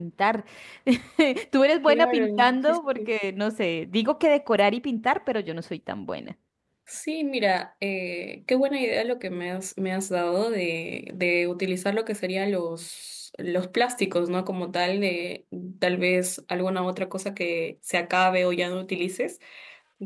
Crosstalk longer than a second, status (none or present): present